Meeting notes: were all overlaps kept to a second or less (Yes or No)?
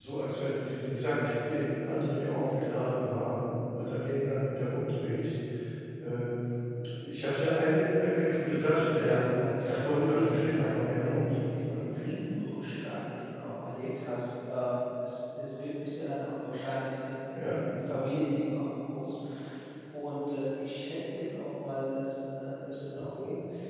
No